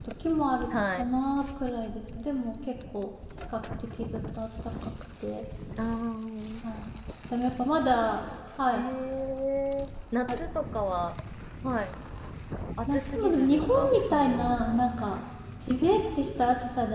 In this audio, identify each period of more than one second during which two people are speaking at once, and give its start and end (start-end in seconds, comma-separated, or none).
12.9-14.6